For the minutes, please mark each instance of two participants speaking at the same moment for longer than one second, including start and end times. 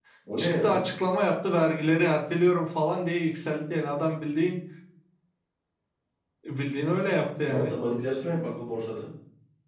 none

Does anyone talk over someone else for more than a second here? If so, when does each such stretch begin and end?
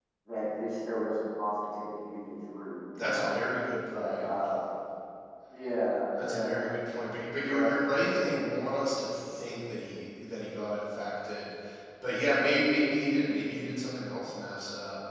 none

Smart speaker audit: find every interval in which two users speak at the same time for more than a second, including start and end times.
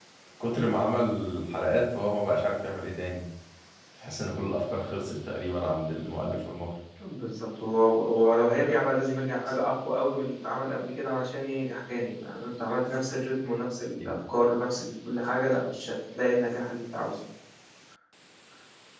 none

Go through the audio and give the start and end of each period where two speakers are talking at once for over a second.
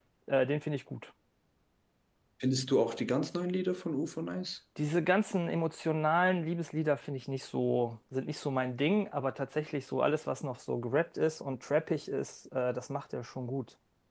none

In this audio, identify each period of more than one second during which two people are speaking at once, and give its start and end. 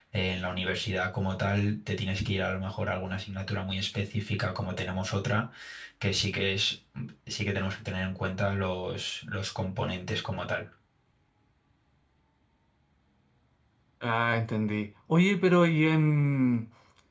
none

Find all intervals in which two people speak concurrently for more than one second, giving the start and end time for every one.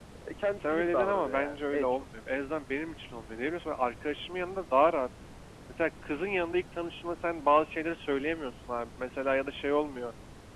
0.6-2.0

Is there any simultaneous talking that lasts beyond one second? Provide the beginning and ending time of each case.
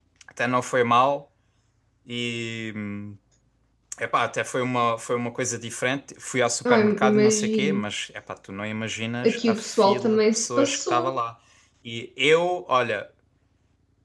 6.7-7.9, 9.2-11.2

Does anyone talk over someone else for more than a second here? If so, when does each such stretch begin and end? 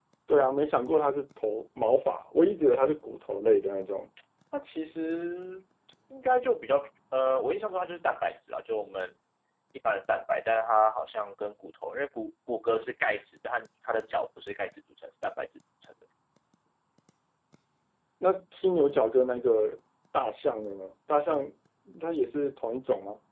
none

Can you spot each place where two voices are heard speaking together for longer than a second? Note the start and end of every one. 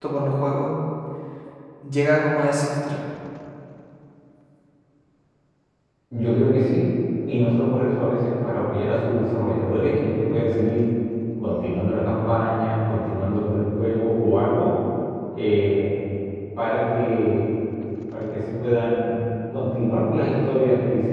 none

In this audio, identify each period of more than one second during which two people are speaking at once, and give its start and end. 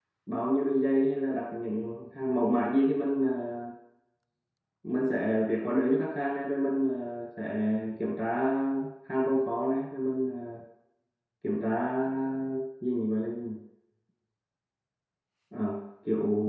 none

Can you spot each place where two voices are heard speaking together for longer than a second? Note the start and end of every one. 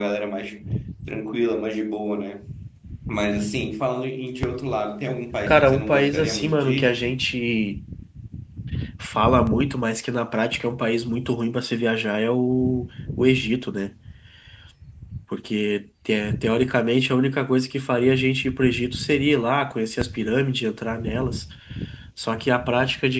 5.5-7.0

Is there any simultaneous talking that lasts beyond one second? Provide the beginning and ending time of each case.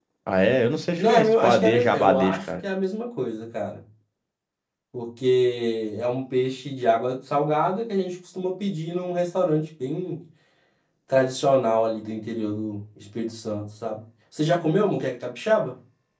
1.0-2.4

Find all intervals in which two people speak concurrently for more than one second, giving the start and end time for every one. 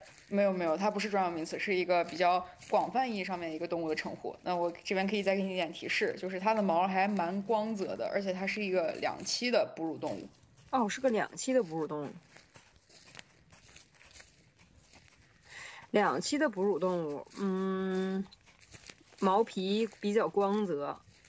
none

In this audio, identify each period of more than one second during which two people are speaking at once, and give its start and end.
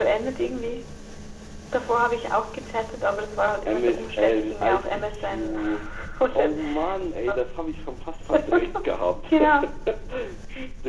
3.6-5.6

